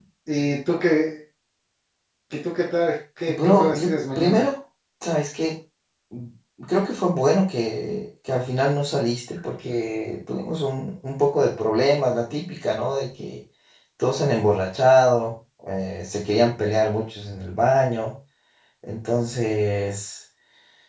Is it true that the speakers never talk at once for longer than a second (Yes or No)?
No